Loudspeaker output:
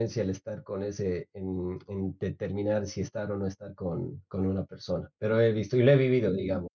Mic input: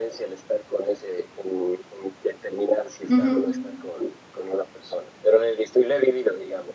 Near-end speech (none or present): present